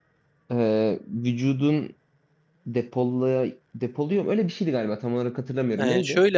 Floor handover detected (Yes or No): Yes